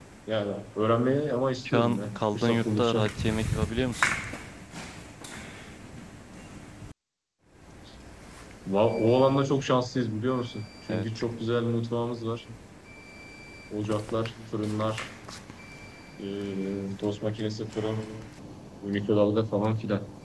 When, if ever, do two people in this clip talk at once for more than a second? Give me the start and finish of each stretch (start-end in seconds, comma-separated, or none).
1.6-3.1